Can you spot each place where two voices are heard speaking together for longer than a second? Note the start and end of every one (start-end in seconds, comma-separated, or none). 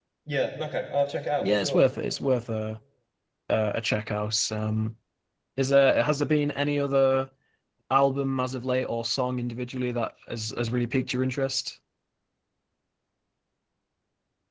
none